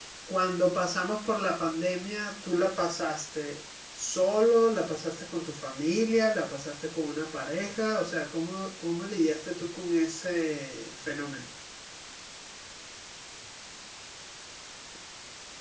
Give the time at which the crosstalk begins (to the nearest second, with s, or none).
none